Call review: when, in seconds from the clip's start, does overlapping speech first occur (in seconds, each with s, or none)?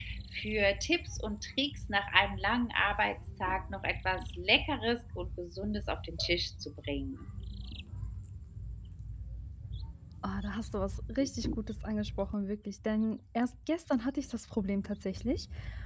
none